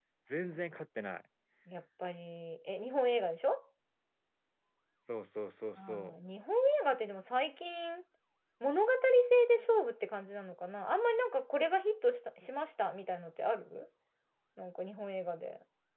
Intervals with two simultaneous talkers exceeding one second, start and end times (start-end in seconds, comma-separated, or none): none